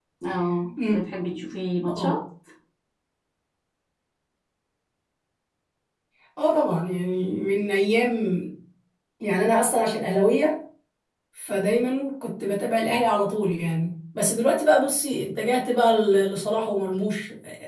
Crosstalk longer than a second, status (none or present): none